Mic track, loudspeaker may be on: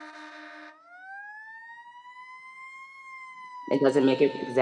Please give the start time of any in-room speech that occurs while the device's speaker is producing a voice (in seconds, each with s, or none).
3.7 s